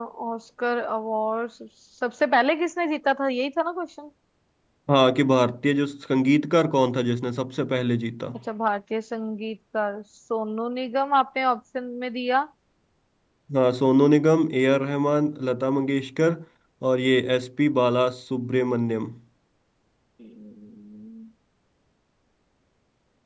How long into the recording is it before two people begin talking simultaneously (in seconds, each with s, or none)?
none